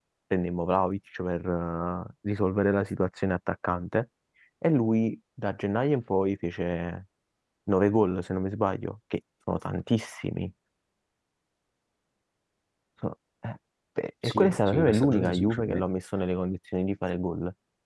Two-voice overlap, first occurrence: 14.2 s

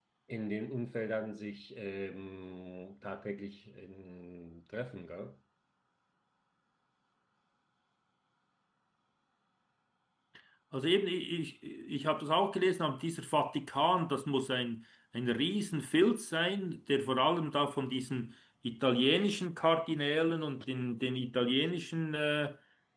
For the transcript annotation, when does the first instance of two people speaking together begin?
none

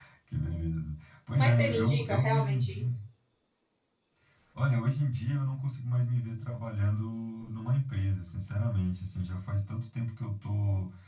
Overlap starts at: 1.4 s

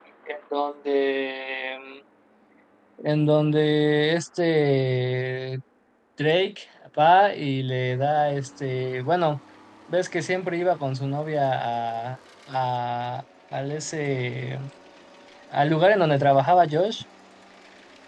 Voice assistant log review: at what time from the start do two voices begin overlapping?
none

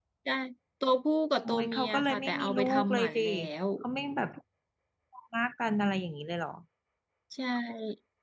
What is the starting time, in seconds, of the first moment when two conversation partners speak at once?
1.4 s

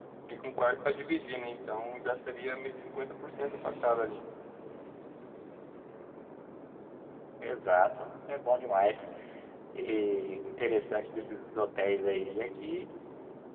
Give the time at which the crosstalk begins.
none

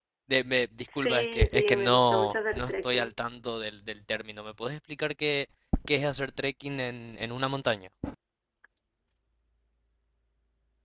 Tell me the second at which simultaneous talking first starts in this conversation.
0.9 s

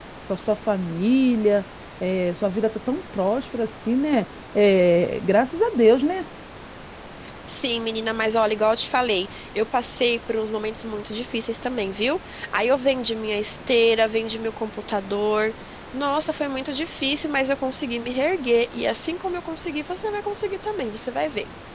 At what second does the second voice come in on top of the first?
none

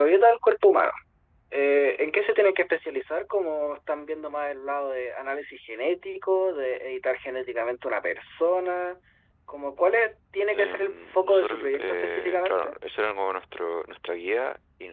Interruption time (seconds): 10.5 s

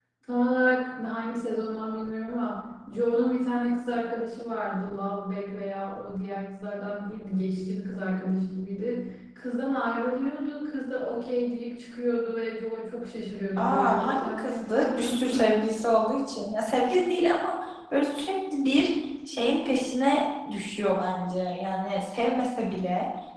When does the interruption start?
13.6 s

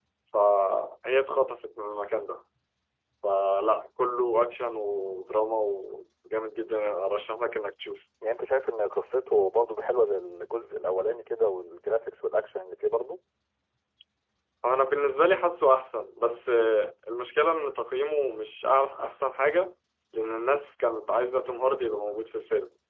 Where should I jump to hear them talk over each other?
none

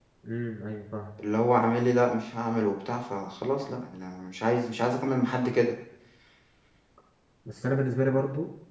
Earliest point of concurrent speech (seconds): none

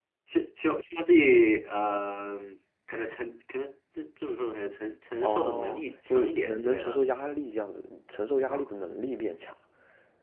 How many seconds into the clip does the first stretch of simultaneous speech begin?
5.2 s

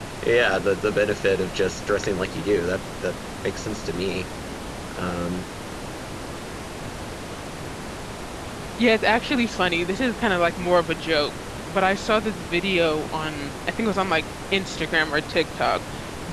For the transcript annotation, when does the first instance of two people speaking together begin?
none

